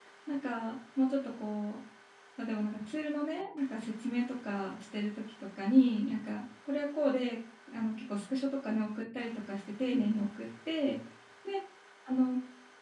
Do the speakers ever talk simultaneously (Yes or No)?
No